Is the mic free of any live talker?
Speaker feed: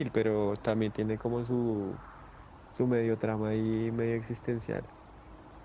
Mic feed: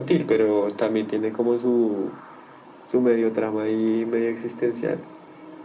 Yes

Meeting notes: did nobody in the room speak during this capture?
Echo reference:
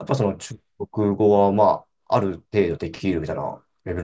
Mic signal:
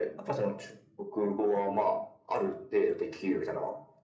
Yes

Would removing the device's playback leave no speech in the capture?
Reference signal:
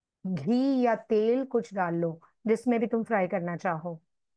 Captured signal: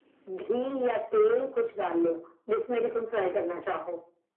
Yes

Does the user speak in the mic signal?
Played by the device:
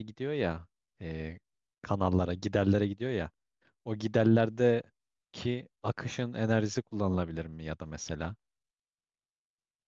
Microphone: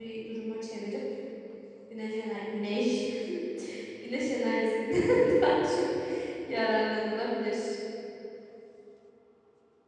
Yes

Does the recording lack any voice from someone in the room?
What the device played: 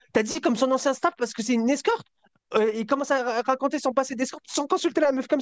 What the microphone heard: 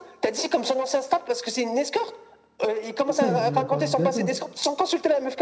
No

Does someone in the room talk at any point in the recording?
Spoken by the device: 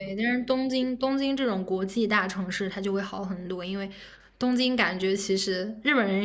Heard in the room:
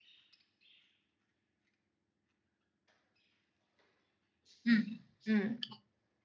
Yes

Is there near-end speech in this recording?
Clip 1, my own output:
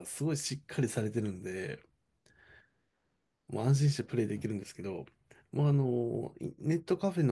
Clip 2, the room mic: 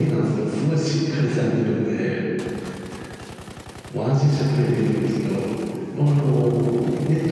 No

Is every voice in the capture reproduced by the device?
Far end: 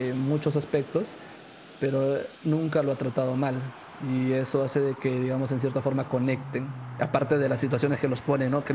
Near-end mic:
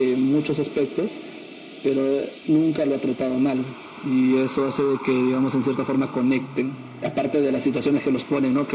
Yes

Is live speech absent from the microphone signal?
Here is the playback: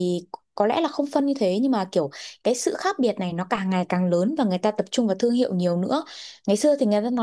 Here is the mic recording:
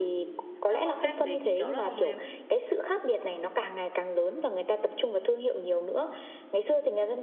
No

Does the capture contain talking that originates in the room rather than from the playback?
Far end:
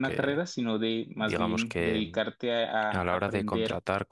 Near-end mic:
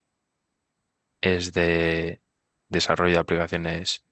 Yes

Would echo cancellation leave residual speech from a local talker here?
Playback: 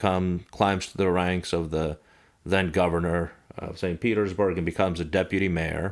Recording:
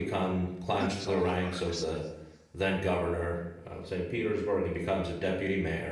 Yes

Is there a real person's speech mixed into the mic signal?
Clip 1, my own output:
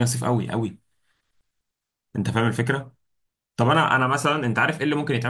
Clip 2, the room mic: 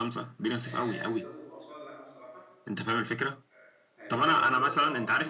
Yes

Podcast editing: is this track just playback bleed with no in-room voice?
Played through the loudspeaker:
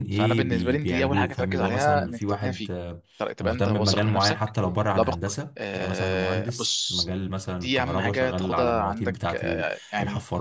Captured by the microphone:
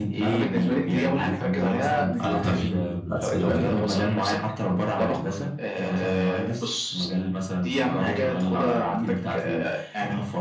No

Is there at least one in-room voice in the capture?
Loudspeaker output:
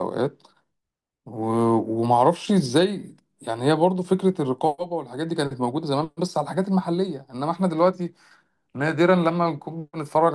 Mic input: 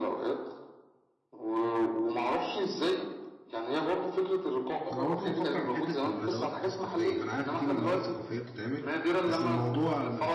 Yes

